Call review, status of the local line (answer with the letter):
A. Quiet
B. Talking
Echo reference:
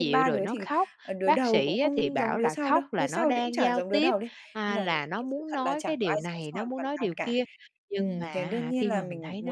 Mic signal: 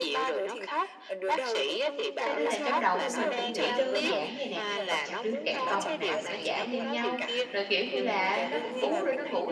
B